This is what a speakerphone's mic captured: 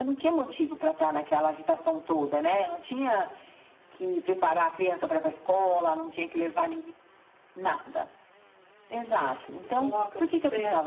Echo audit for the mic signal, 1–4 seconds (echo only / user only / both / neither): echo only